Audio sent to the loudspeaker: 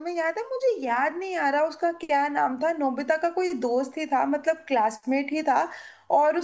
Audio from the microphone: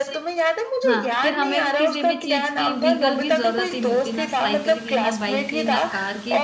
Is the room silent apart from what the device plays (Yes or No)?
No